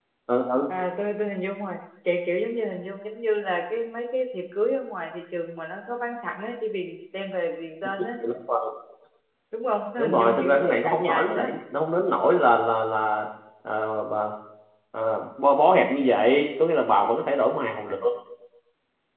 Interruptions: present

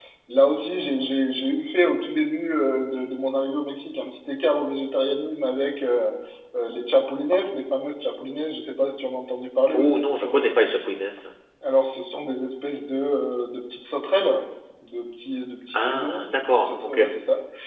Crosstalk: present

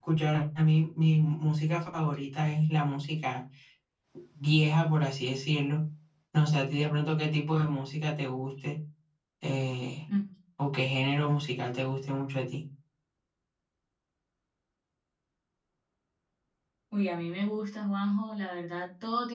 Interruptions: none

